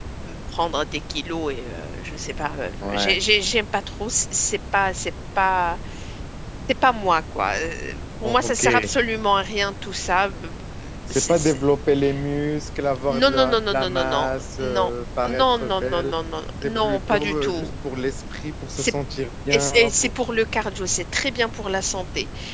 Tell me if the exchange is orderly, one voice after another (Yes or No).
No